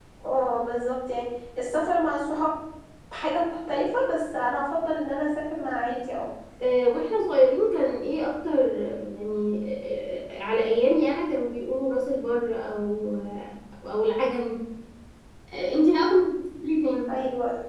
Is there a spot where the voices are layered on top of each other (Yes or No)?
No